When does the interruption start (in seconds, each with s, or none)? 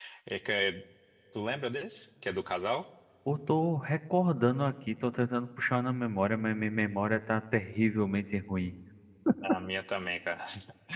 none